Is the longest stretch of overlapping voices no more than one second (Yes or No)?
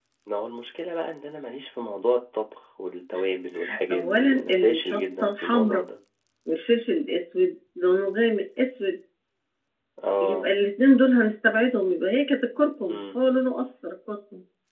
No